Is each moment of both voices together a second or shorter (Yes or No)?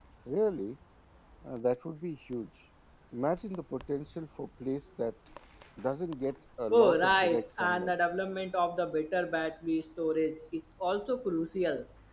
No